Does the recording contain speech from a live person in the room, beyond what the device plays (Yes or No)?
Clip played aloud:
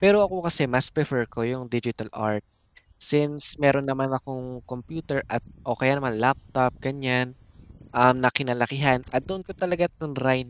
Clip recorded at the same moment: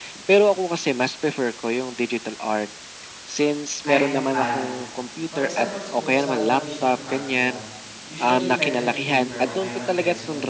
Yes